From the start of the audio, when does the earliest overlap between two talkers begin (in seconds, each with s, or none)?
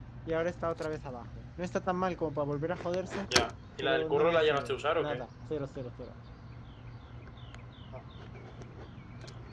3.8 s